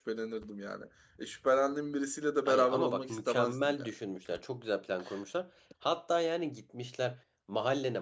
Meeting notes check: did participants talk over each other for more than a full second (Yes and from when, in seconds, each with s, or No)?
Yes, from 2.5 s